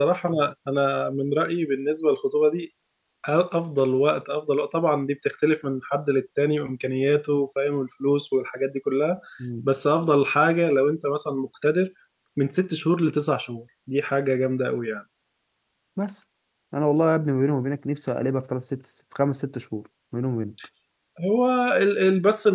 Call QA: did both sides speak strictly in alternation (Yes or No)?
Yes